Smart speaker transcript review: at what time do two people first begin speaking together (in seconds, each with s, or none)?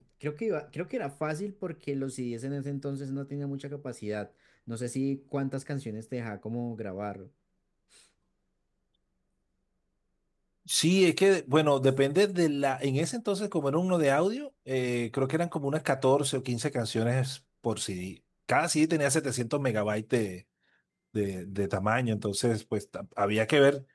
none